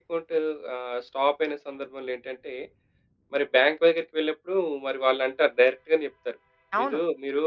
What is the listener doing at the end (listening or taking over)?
listening